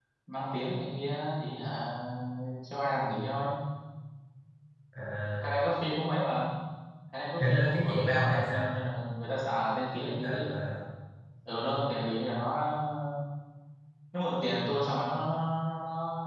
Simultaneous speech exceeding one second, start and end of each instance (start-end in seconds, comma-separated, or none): 7.4-8.7